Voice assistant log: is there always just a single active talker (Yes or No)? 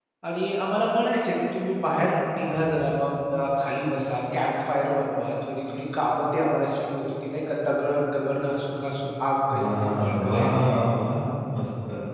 No